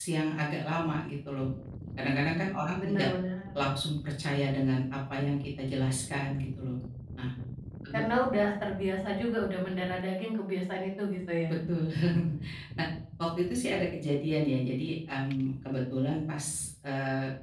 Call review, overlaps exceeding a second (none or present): none